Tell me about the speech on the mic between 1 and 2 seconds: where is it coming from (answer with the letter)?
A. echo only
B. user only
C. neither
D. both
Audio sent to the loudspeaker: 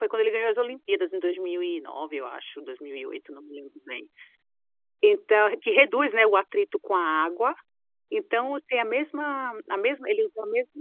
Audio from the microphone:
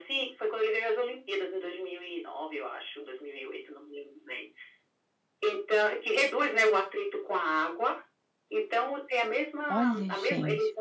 A